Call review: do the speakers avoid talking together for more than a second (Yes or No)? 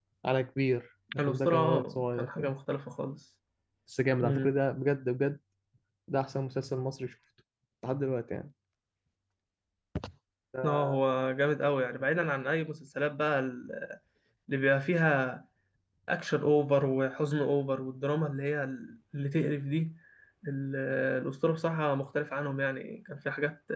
No